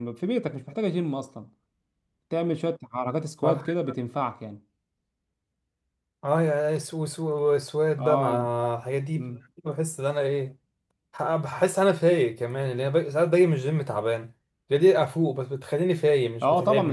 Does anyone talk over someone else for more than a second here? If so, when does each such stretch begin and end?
none

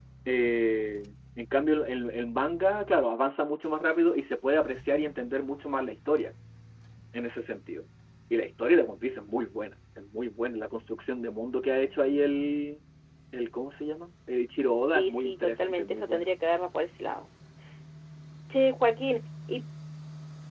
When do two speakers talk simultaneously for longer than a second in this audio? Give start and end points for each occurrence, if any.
14.9-16.3

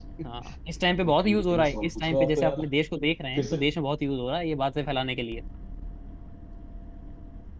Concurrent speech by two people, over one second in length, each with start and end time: 1.0-2.6

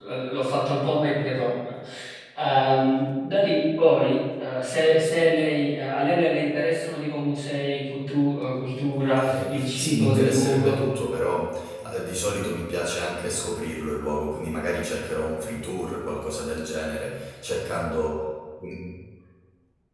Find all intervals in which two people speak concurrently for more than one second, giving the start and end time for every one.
9.2-10.8

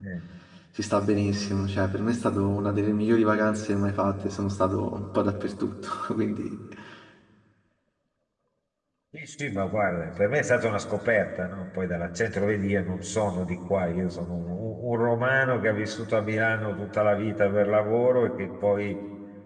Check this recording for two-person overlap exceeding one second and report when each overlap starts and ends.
none

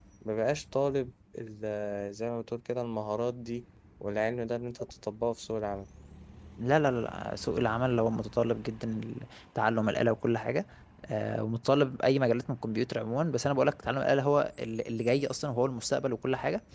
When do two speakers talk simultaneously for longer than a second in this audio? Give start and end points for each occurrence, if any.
none

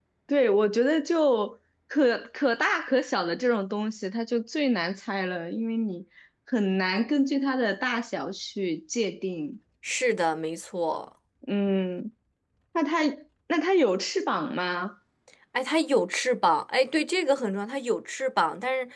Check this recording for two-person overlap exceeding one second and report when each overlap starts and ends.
none

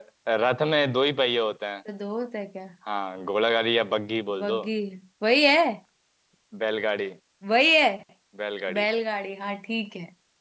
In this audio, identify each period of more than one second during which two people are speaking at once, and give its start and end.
none

